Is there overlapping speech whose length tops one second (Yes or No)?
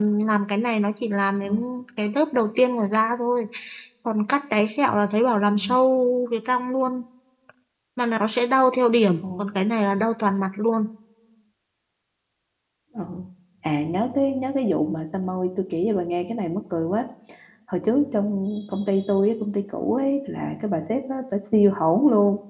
No